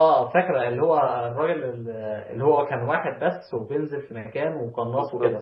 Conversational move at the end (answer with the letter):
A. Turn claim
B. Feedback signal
A